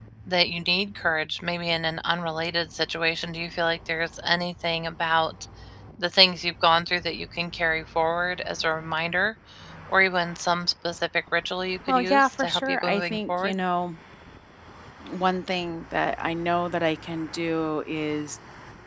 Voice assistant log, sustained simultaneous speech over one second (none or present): present